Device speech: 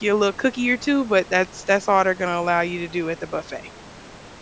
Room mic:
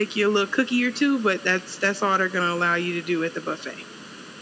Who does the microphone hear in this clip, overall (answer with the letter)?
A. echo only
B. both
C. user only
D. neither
A